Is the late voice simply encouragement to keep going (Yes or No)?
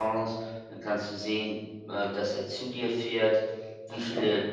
Yes